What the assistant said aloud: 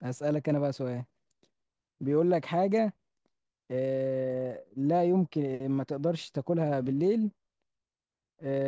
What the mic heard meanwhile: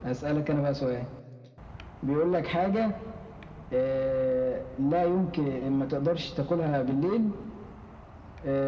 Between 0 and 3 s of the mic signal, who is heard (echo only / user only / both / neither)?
echo only